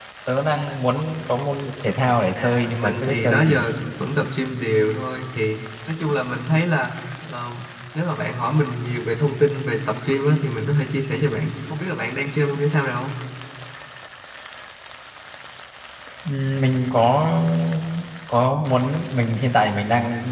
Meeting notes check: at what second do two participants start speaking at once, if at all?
2.4 s

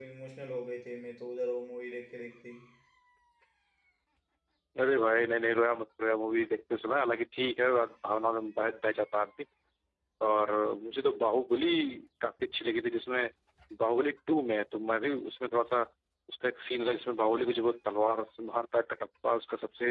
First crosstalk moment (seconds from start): none

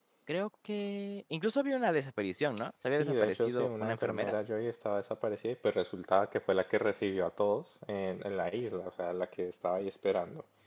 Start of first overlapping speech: 2.9 s

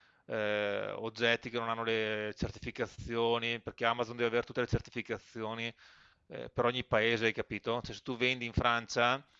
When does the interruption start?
none

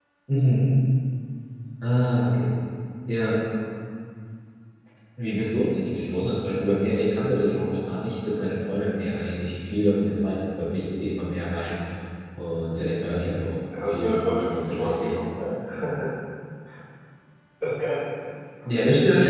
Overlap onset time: 13.7 s

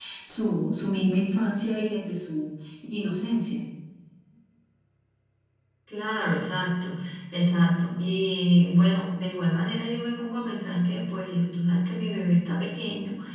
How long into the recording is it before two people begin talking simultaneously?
none

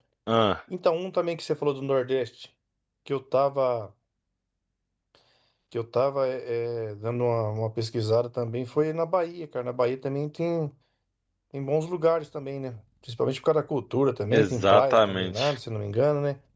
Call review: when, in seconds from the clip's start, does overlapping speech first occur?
14.3 s

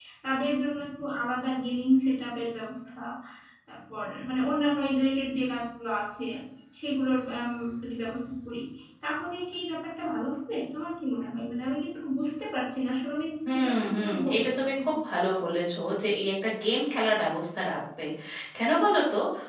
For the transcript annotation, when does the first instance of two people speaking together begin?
13.4 s

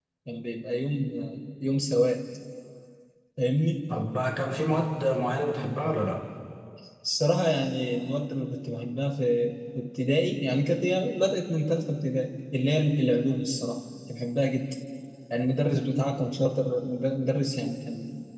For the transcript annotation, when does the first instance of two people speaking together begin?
none

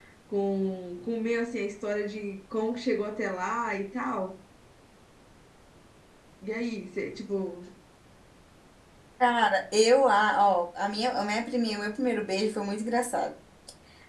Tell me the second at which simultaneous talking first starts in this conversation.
none

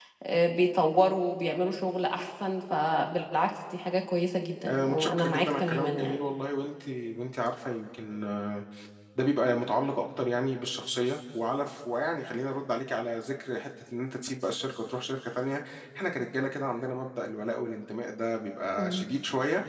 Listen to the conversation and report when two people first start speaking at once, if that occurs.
4.7 s

